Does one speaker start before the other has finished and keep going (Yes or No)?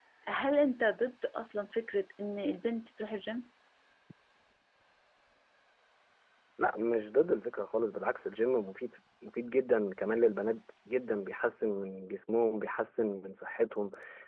No